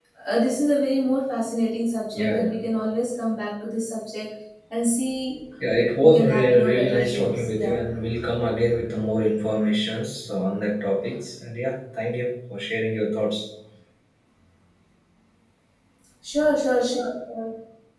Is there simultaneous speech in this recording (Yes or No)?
Yes